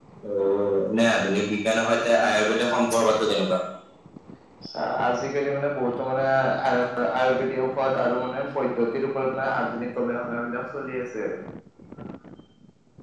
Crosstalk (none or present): none